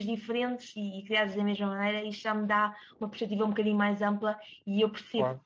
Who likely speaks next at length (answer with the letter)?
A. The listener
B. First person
B